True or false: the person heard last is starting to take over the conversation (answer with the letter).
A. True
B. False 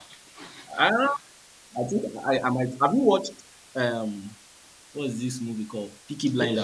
A